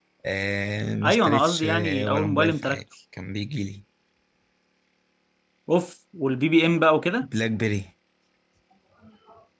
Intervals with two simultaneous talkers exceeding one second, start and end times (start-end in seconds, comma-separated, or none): 1.0-2.8